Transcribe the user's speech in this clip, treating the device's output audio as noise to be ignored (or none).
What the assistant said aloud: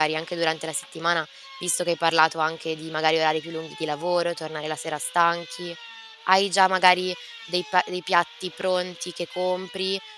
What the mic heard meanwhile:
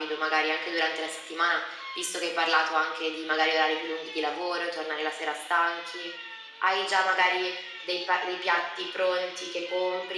none